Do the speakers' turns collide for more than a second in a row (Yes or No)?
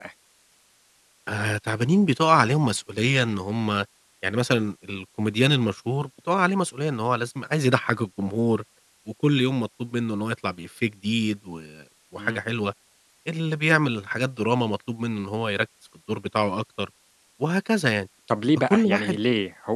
No